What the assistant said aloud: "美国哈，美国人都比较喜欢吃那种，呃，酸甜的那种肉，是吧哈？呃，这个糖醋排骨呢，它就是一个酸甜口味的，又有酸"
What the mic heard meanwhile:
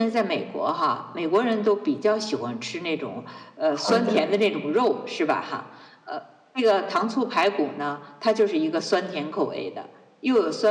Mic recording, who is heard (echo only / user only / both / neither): both